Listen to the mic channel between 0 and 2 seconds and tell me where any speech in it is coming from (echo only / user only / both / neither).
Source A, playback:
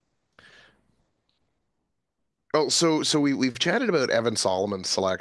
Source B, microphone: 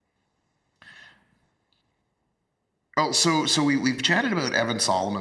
neither